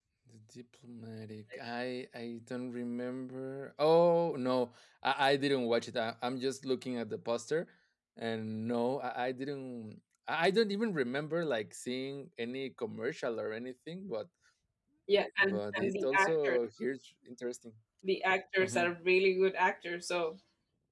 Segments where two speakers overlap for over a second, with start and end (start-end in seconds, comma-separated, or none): 15.4-16.6